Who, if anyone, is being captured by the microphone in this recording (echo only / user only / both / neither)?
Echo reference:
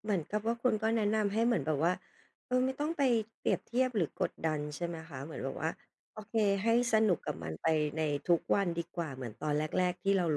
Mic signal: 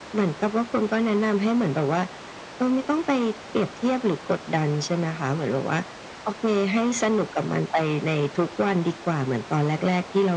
echo only